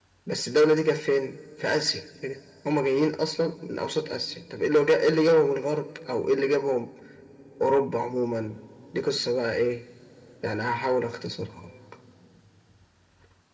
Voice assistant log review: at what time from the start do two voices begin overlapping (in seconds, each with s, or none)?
none